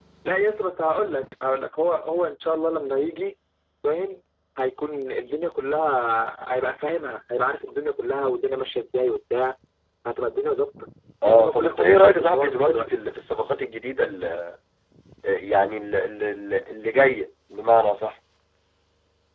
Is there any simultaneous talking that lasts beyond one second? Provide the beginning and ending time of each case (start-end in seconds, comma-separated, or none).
11.2-12.9